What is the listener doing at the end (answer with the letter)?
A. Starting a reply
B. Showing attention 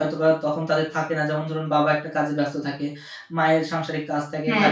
B